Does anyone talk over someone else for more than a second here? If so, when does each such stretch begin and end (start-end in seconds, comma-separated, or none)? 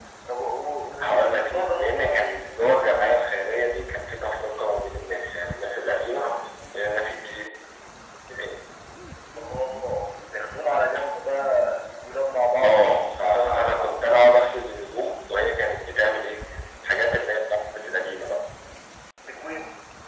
1.0-2.4, 12.6-13.9